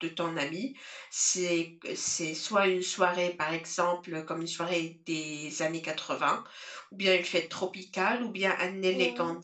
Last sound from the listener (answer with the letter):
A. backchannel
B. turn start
A